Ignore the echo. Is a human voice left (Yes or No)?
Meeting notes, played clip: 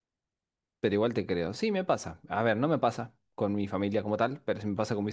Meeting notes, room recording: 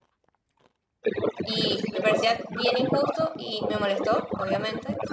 Yes